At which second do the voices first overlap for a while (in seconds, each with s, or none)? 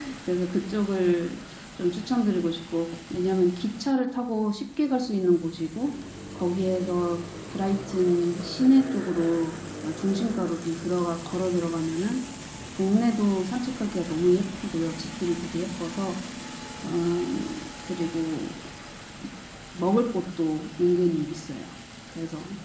none